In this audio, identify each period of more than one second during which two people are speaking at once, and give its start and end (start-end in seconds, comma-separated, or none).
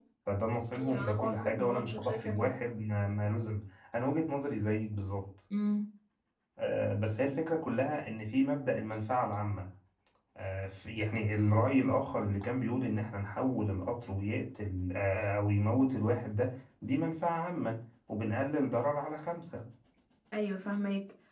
0.8-2.5